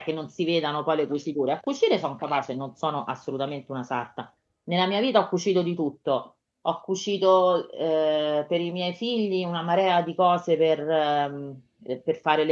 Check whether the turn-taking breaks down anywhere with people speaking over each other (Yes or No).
No